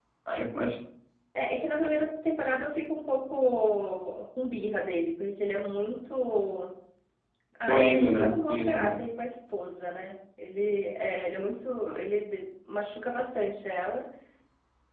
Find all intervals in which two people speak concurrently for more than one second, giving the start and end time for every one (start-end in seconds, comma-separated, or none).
7.6-9.0